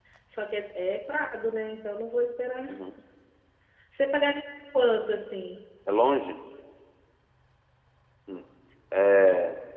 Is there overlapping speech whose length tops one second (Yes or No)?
No